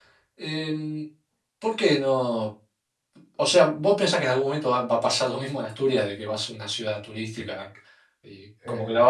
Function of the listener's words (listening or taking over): listening